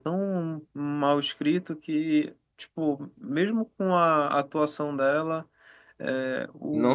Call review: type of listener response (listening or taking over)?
listening